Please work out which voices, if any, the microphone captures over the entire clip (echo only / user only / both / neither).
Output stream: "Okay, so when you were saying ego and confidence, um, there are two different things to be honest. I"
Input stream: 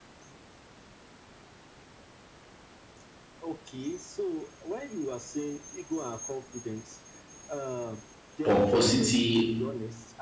both